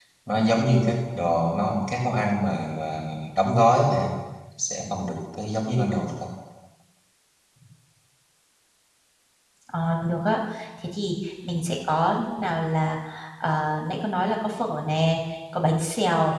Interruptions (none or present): none